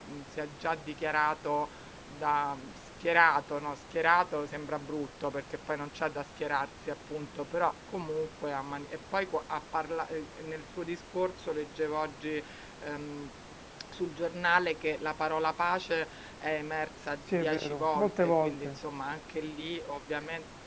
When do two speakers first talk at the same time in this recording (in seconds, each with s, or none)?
17.3 s